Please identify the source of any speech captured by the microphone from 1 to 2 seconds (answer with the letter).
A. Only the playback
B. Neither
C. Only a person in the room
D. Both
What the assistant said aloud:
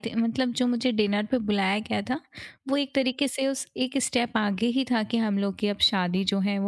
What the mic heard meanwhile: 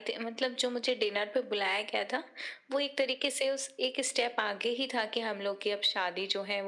A